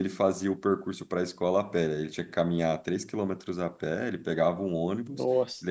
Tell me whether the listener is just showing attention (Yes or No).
Yes